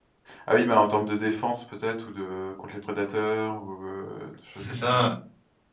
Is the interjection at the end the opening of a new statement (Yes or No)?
Yes